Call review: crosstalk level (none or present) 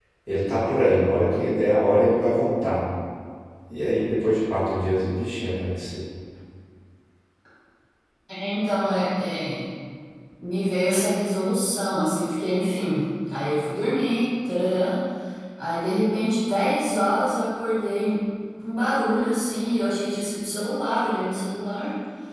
none